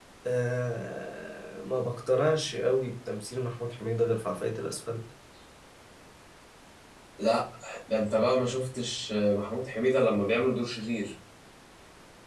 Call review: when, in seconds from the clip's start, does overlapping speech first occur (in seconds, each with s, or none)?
none